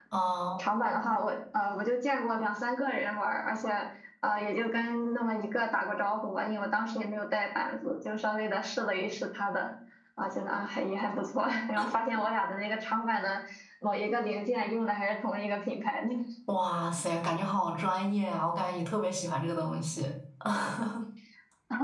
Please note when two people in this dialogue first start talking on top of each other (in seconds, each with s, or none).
none